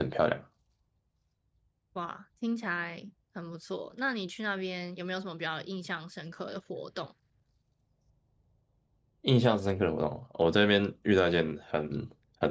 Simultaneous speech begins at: none

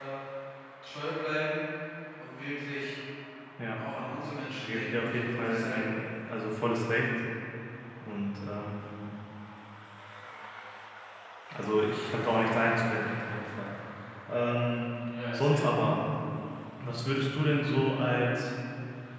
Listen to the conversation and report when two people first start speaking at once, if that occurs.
5 s

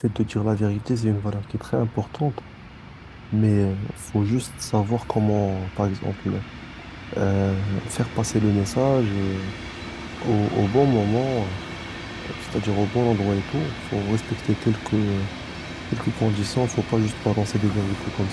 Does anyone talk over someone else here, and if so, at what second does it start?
none

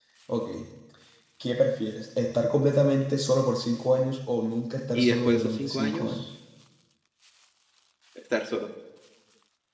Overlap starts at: 5 s

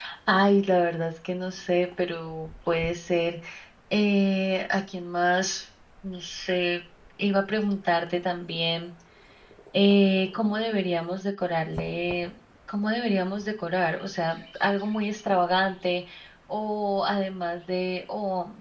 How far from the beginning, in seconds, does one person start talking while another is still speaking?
none

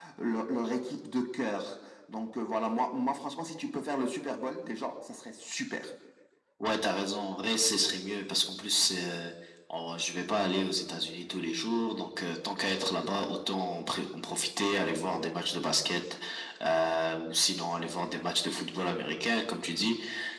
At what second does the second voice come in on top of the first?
none

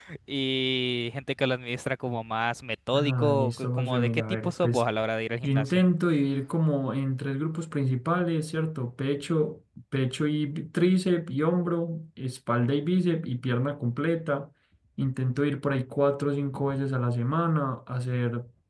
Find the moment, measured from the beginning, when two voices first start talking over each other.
3 s

